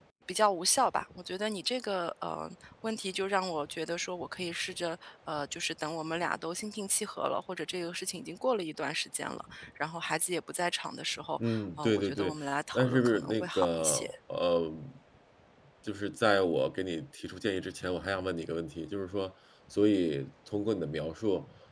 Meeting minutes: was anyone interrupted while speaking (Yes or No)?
Yes